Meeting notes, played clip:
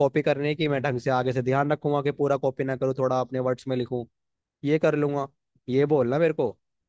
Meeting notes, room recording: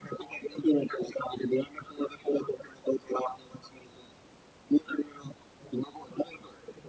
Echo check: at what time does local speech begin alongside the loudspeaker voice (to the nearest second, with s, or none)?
none